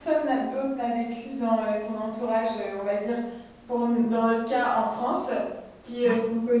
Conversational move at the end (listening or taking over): listening